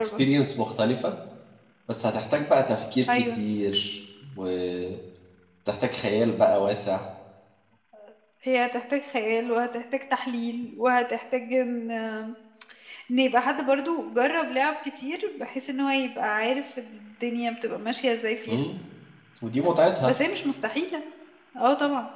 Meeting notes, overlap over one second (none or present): none